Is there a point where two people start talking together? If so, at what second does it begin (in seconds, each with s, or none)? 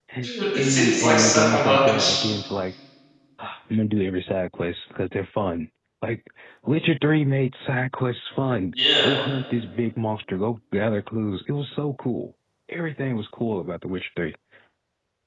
0.6 s